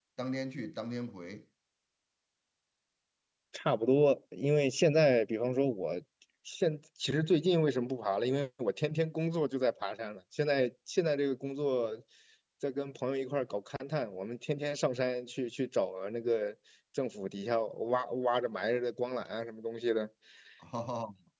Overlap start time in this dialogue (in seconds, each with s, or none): none